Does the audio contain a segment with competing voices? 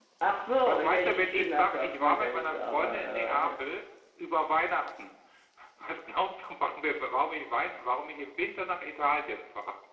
Yes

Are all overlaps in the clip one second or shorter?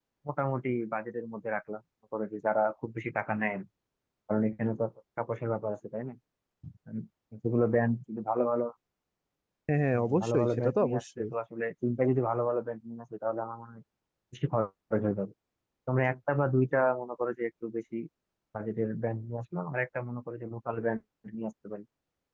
No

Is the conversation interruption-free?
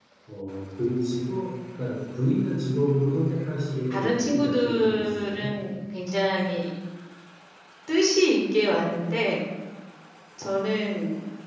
No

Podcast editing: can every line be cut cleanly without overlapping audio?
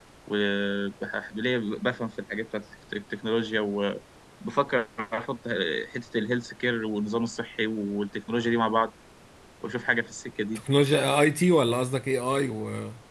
Yes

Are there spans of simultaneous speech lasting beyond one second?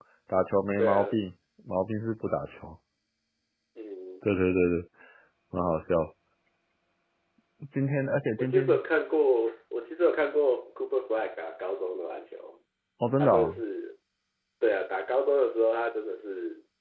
No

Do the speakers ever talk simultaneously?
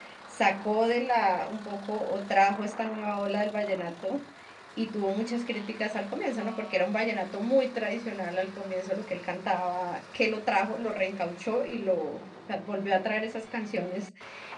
No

